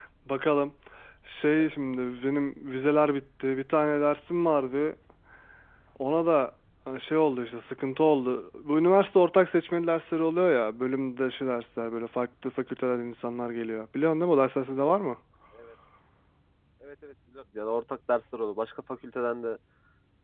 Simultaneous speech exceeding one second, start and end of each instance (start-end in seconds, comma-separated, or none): none